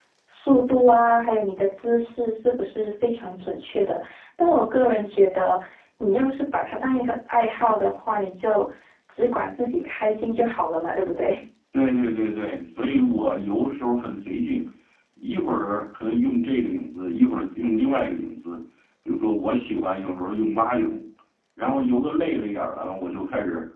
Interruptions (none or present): none